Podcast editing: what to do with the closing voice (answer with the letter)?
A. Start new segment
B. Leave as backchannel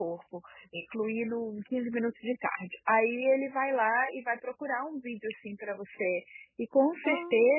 B